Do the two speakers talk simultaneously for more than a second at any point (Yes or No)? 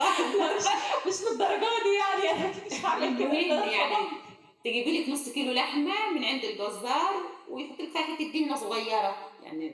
Yes